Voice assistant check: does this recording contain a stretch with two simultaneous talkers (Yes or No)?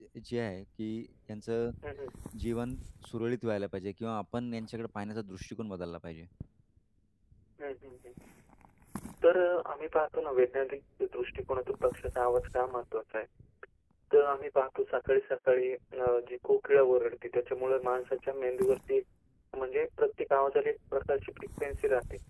No